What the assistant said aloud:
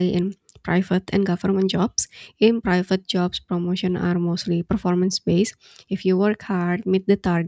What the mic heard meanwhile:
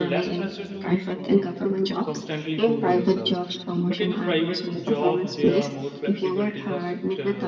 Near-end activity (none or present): present